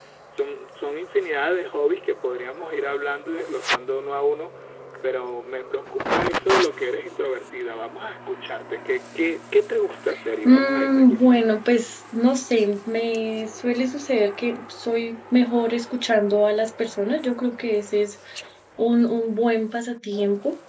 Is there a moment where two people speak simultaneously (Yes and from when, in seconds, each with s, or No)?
Yes, from 10.4 s